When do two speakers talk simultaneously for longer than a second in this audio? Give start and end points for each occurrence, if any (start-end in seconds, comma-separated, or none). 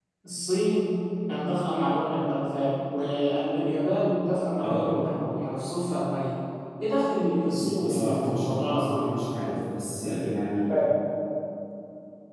7.8-9.2